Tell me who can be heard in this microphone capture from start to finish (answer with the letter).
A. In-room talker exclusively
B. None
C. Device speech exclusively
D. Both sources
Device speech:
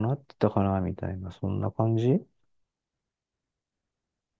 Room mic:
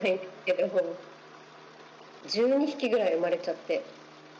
A